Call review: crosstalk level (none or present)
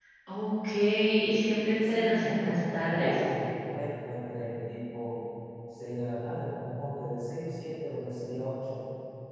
present